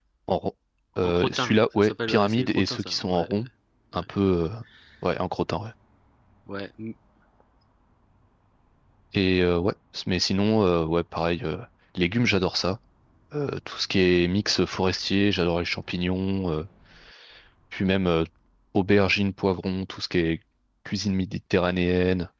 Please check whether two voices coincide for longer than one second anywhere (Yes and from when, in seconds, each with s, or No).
Yes, from 1.0 s